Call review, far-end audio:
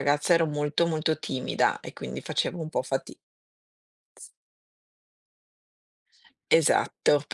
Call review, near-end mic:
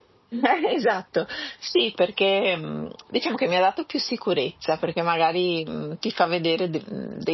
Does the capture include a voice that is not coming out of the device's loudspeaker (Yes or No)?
Yes